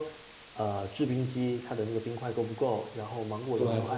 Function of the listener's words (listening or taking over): listening